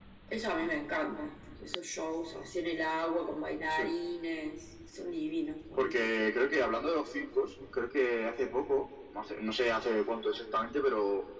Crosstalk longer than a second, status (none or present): none